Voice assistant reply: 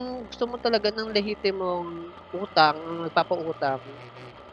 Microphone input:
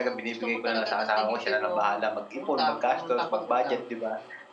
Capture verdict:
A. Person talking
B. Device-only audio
A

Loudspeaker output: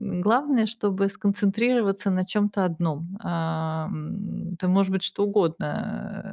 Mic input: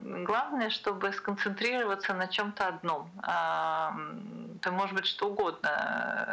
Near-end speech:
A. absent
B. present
A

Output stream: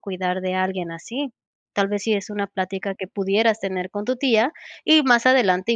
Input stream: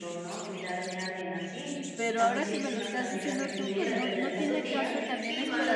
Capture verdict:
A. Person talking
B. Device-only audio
A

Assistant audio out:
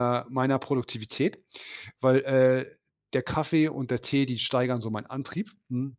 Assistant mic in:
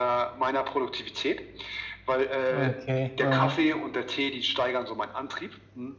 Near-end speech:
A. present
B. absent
A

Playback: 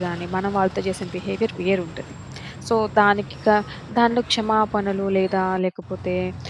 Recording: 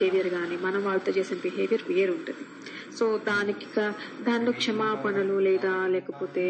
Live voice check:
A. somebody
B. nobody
A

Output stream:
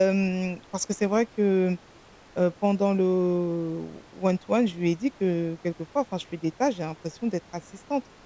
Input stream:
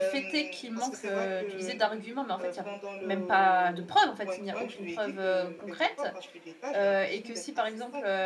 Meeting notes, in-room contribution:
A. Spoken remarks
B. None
A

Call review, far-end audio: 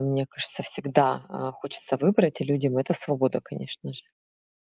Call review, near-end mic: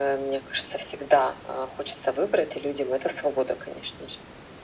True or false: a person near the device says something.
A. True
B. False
B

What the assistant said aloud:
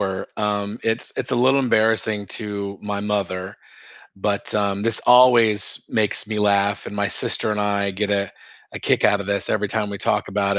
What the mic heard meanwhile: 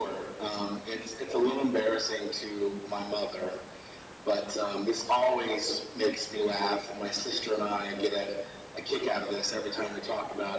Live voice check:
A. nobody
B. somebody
A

